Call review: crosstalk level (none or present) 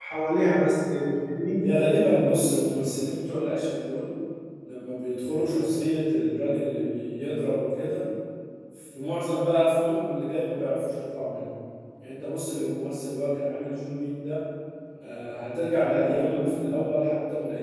none